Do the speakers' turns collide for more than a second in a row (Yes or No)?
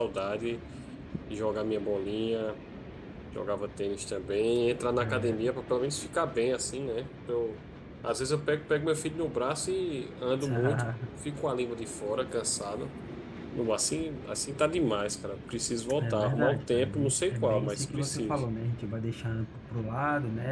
Yes